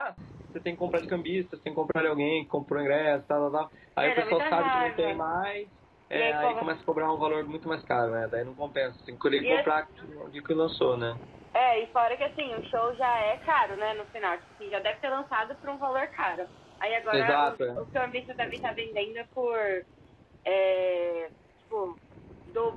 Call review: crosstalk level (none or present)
present